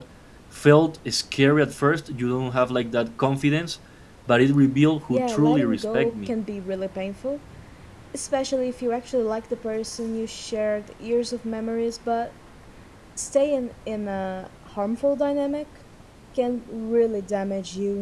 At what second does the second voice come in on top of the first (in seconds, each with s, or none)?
5.1 s